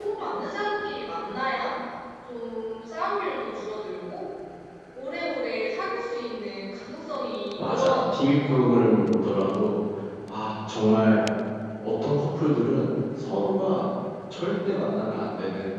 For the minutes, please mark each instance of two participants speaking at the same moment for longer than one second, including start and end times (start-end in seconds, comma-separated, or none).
7.6-9.1